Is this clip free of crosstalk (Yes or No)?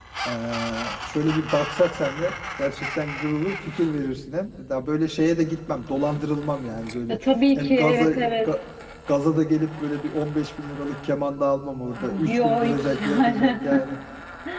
No